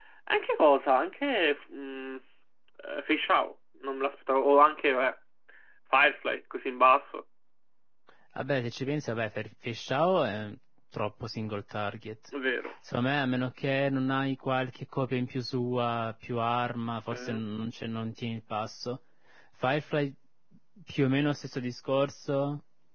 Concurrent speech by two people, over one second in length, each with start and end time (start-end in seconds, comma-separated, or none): none